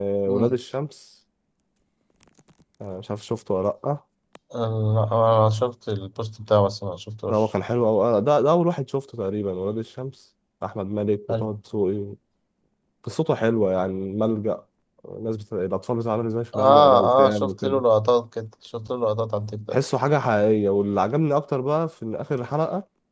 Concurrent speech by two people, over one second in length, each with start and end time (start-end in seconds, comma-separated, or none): 16.6-17.8